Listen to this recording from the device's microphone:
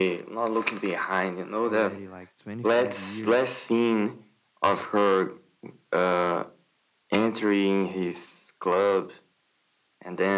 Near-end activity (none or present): present